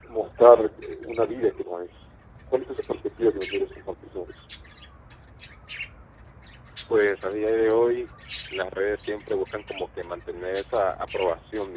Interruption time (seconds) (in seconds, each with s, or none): none